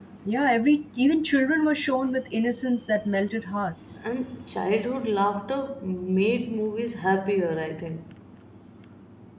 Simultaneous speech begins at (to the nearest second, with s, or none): none